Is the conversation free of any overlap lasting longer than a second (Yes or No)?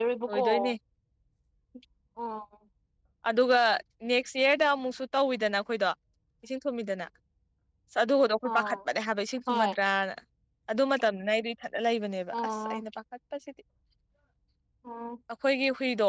Yes